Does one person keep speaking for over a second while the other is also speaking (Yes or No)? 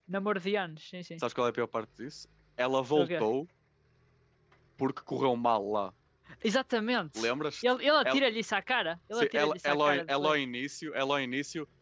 Yes